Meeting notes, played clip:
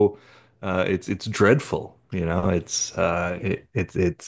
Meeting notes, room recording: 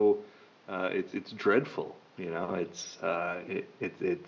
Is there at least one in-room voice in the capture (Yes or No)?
No